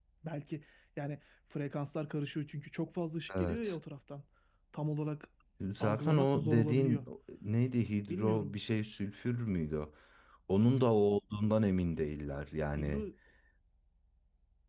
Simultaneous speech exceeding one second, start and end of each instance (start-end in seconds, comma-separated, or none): 5.8-7.0